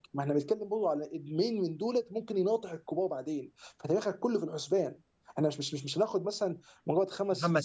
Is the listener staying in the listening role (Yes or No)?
Yes